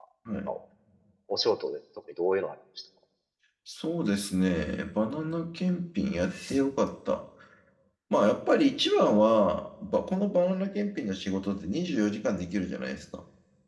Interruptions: none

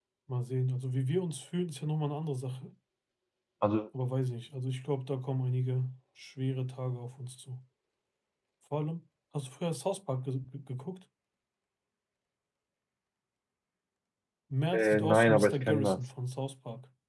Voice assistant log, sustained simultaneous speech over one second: present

